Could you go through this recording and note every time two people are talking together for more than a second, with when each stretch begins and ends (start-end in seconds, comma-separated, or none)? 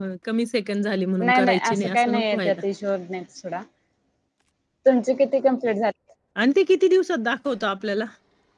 1.2-2.6